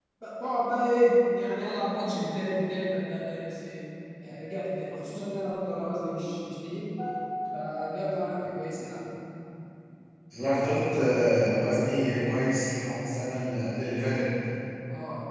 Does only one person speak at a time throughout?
Yes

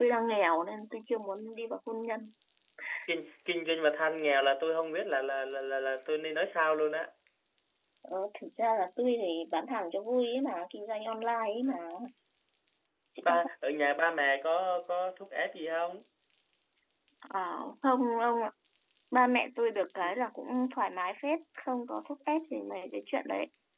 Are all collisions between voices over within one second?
Yes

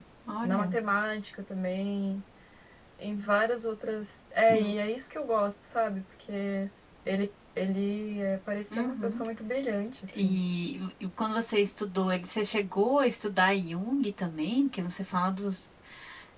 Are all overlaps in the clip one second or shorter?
Yes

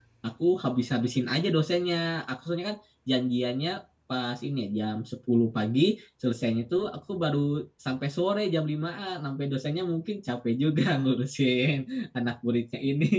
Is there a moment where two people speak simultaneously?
No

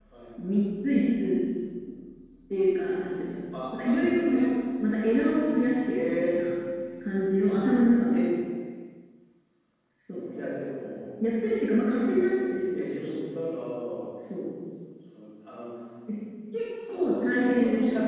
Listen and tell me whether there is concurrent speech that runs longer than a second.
Yes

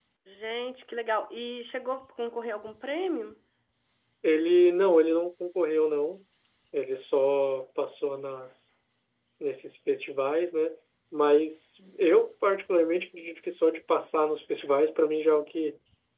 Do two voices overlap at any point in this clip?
No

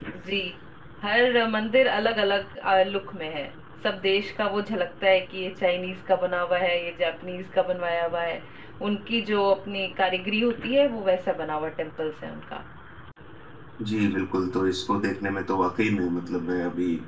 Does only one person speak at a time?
Yes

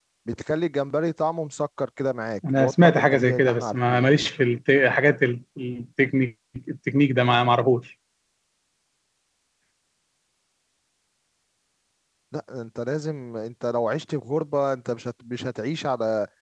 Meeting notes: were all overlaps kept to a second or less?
No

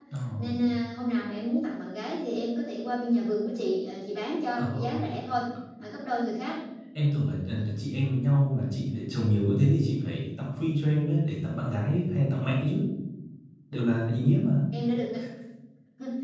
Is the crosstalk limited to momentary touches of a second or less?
Yes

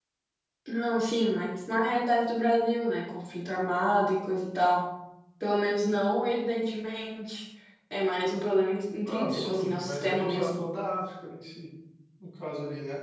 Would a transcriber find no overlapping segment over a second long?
No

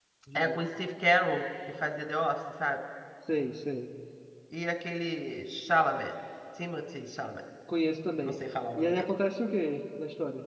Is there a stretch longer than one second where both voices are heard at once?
No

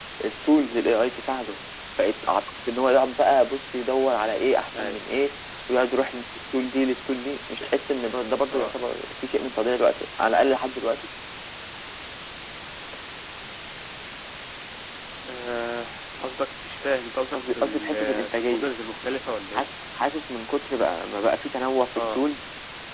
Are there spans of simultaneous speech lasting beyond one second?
Yes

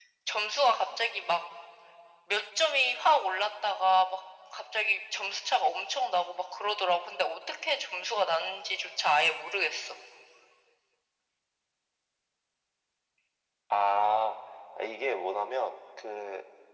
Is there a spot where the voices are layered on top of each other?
No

